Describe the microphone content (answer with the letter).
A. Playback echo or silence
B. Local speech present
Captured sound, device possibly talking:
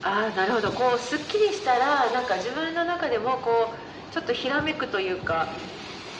A